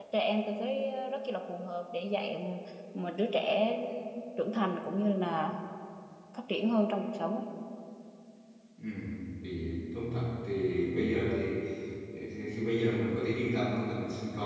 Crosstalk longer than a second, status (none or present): none